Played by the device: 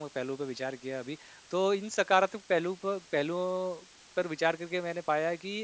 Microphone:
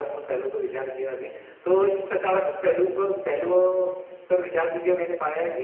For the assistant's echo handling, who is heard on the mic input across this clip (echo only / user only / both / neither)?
echo only